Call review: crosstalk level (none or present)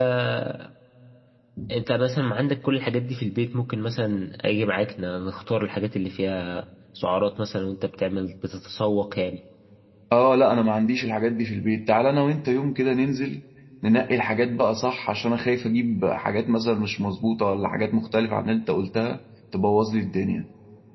none